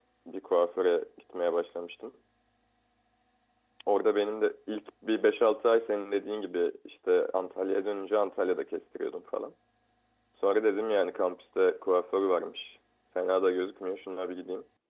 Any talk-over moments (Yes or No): No